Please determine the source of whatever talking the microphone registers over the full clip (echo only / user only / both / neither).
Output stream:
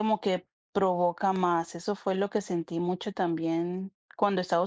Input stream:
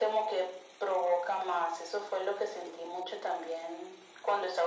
echo only